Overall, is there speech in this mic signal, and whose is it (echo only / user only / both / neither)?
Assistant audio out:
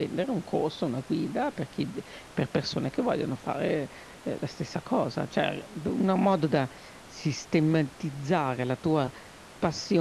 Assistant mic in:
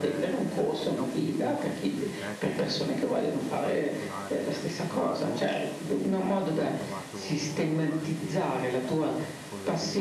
both